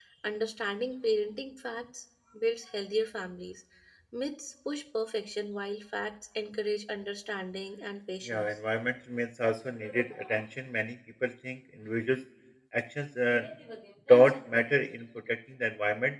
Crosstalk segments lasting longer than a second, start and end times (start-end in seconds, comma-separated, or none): none